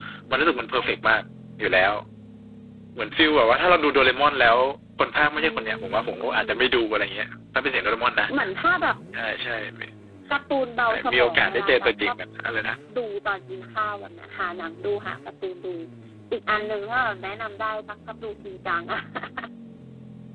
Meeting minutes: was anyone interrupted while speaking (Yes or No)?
Yes